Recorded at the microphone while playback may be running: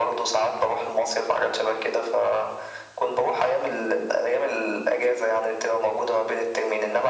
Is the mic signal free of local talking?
Yes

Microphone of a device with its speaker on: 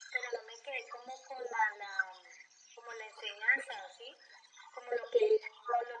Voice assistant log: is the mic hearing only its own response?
Yes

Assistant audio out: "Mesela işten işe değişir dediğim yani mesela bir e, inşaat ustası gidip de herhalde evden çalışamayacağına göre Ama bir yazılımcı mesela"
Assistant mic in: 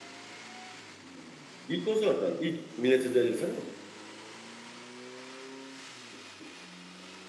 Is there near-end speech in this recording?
Yes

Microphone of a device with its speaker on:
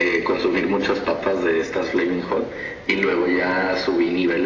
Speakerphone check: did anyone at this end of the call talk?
No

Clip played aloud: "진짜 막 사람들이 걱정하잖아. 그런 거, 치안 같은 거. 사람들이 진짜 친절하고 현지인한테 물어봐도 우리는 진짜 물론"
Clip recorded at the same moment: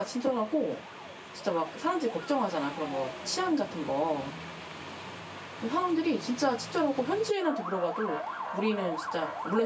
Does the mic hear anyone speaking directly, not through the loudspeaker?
No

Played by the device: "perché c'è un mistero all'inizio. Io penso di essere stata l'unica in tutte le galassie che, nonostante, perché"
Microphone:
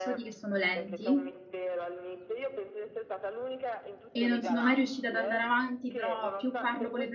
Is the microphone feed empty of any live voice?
No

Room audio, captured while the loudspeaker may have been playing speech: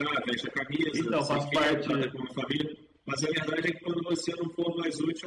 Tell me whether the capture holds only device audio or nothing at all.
No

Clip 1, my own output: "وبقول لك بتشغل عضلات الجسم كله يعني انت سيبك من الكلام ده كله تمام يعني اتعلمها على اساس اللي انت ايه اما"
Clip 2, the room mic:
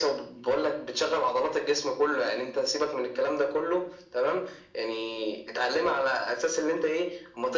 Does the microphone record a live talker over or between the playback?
No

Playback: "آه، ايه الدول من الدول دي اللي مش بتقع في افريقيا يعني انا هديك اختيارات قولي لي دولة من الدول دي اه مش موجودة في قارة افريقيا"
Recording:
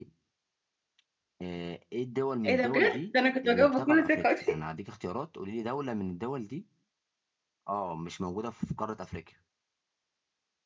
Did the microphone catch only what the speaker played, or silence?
No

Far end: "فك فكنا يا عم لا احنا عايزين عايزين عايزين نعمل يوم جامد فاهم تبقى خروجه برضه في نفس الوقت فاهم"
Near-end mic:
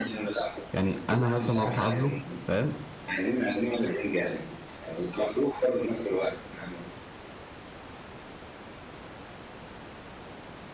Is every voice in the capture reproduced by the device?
No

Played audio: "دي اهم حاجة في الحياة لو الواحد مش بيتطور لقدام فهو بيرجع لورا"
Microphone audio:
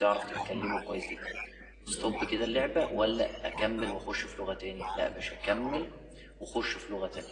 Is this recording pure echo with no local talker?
No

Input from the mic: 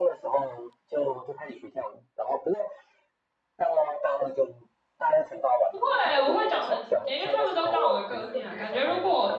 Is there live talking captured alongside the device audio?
Yes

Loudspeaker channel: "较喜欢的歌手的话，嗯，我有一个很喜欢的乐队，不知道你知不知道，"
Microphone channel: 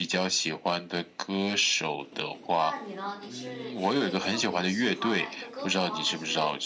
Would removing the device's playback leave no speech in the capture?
No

